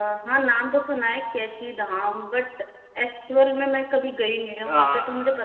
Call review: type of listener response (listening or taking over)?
taking over